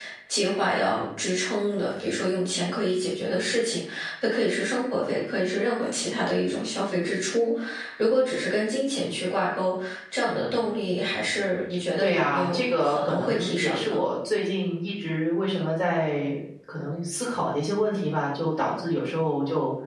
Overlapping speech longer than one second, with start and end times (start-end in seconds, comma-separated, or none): 12.0-14.0